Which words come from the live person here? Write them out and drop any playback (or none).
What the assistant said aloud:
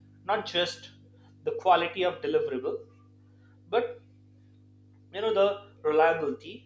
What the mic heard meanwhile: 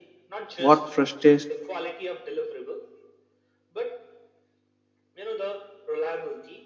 What frustrates